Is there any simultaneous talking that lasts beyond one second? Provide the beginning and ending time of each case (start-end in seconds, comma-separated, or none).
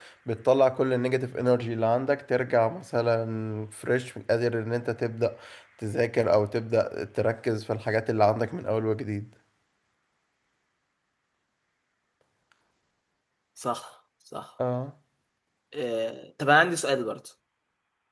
none